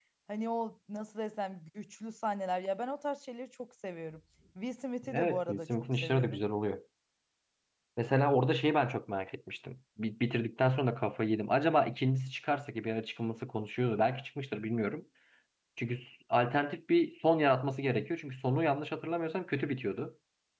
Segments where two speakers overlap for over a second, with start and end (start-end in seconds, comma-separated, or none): 5.1-6.4